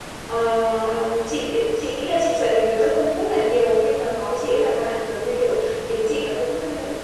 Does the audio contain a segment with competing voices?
No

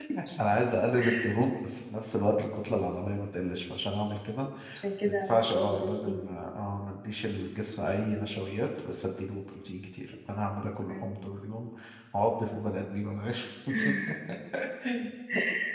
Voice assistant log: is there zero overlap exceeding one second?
No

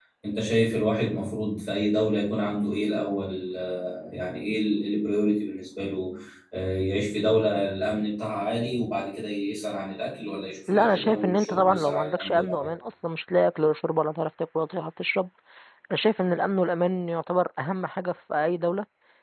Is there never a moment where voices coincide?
No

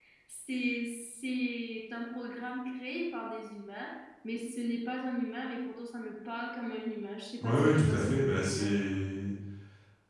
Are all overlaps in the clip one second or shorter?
No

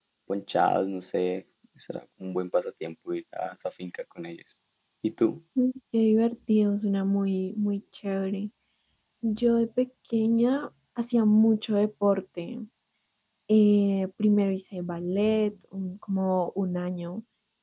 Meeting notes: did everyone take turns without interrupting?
Yes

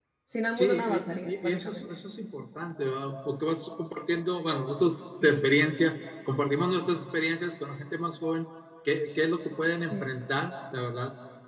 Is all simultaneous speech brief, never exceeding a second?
No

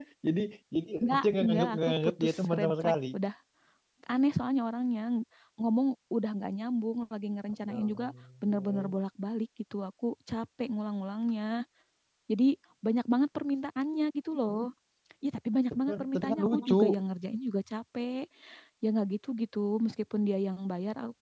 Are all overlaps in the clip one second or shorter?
No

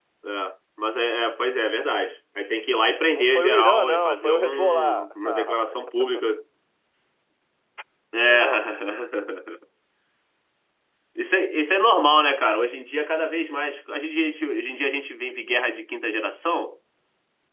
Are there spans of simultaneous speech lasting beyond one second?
Yes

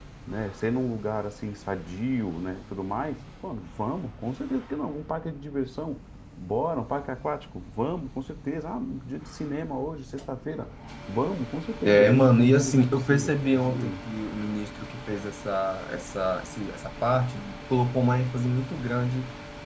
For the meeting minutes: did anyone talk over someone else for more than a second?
Yes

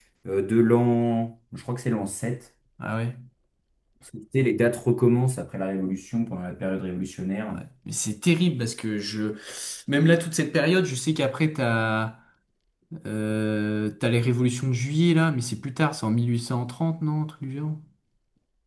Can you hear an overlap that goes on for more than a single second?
No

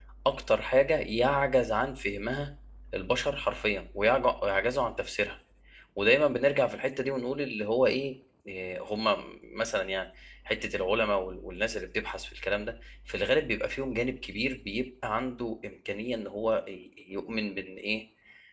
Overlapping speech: No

